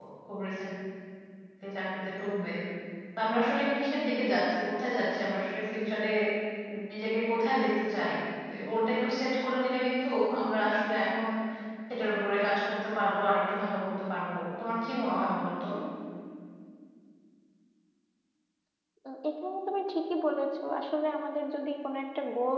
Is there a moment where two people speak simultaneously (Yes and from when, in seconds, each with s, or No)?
No